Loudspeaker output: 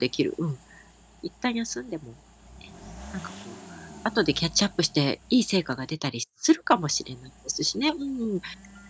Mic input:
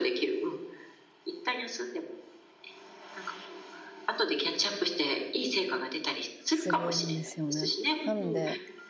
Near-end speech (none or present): present